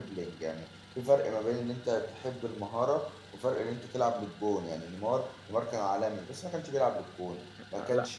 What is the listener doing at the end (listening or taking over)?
listening